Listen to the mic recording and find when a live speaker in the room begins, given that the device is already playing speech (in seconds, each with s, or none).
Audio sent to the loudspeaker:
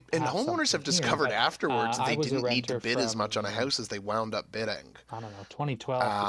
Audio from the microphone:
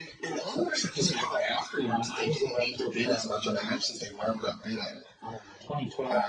none